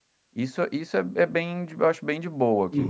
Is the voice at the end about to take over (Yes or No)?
Yes